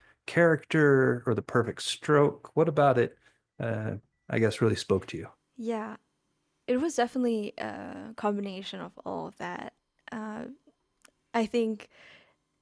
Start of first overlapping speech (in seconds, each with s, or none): none